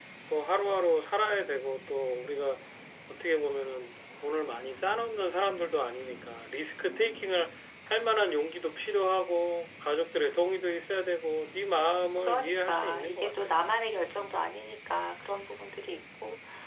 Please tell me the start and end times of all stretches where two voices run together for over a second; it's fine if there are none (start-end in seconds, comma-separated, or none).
12.3-13.5